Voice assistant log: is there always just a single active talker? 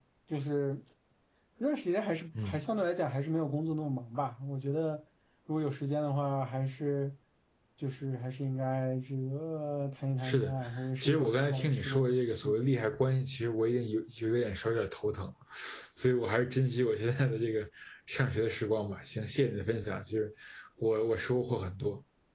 No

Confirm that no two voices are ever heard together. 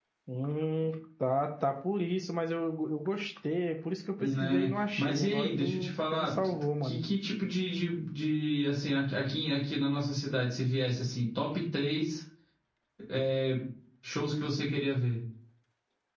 No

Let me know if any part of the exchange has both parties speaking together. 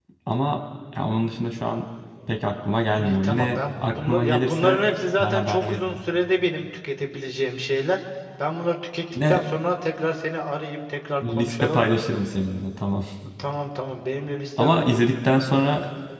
Yes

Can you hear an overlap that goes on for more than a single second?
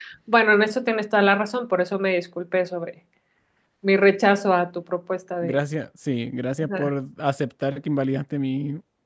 No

